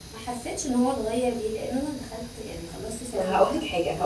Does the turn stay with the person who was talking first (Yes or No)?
No